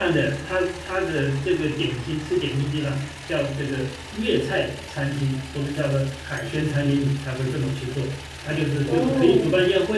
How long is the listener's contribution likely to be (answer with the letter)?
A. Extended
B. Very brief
B